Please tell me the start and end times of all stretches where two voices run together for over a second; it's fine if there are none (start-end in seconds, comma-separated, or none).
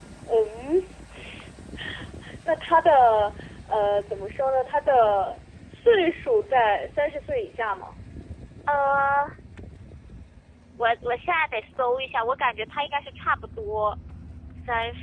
none